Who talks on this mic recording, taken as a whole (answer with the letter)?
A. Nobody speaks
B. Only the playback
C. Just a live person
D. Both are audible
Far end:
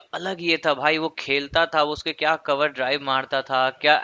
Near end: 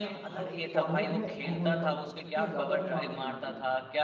D